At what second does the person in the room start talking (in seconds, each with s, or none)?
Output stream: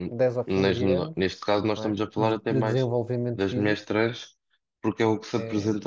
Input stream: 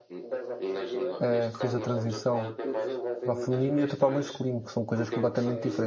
1.2 s